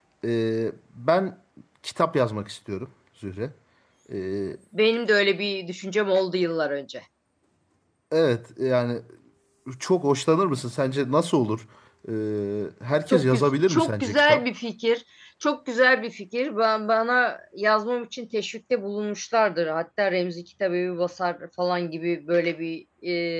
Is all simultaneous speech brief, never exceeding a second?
No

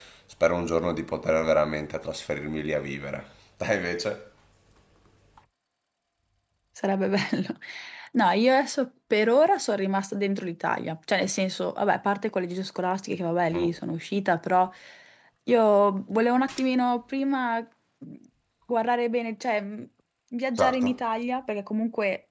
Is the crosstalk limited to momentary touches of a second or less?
Yes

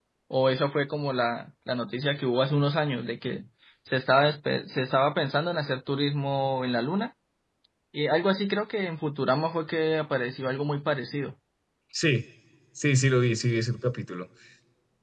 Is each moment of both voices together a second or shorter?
Yes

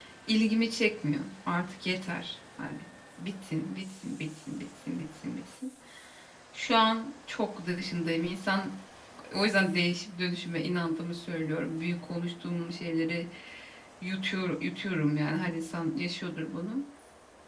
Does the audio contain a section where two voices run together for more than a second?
No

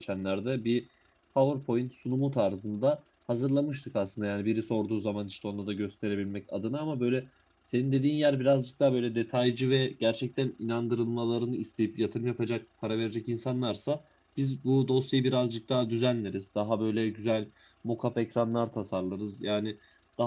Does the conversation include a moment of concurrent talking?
No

